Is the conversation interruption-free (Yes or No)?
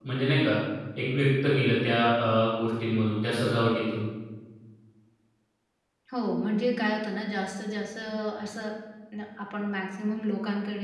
Yes